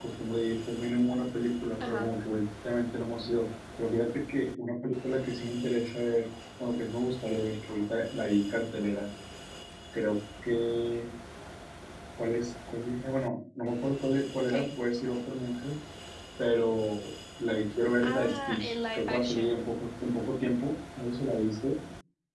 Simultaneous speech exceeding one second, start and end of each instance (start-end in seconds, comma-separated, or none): 18.0-19.6